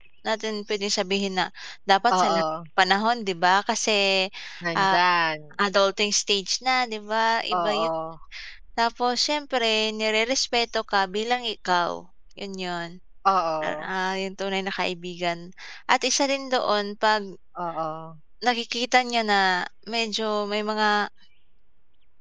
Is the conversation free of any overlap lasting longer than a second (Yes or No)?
Yes